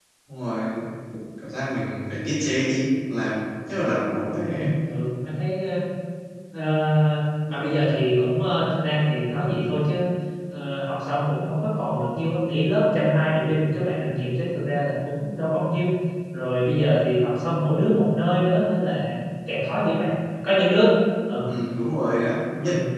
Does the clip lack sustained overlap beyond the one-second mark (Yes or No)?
Yes